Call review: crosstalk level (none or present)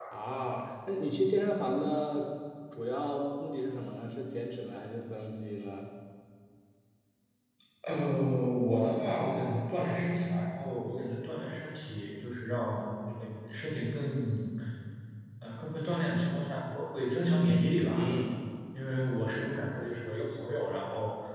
none